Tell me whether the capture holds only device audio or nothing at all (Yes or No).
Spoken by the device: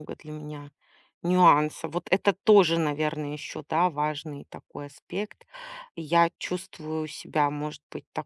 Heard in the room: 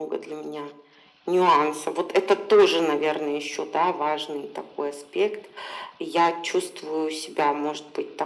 Yes